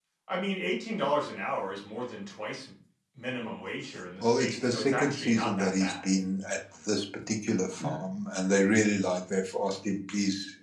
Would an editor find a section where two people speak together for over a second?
Yes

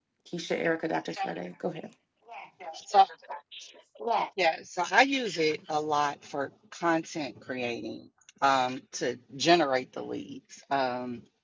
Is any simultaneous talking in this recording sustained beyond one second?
No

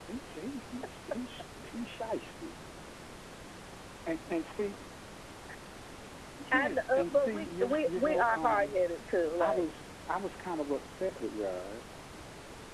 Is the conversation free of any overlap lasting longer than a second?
No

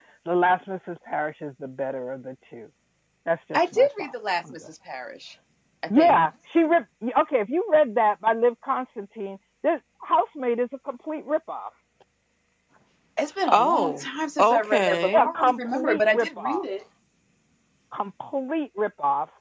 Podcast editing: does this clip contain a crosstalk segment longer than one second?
Yes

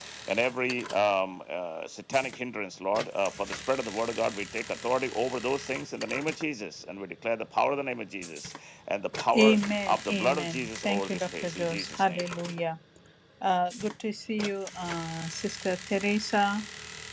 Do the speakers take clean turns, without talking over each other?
No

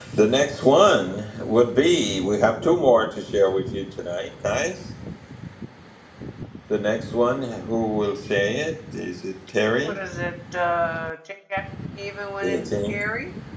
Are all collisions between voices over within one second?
Yes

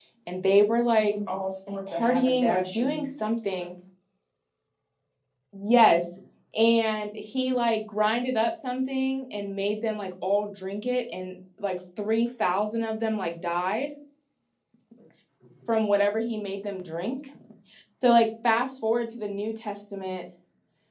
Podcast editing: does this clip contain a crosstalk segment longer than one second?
Yes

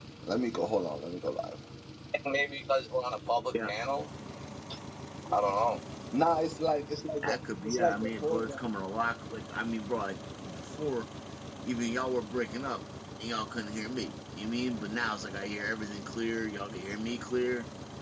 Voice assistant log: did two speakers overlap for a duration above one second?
Yes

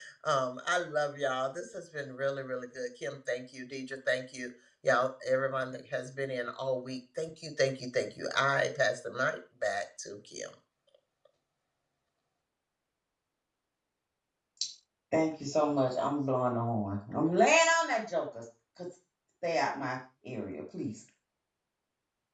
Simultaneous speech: No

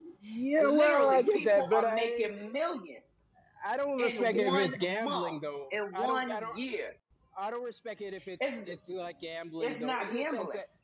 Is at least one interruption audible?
Yes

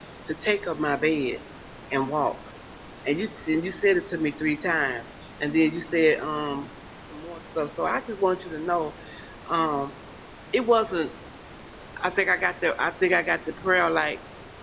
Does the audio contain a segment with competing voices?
No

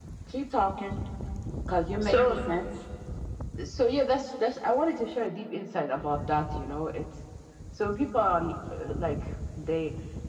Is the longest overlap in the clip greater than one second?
No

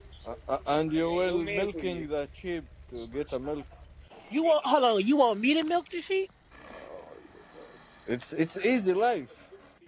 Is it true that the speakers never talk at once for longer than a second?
No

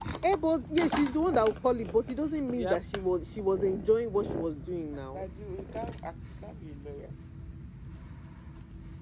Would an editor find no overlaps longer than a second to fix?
Yes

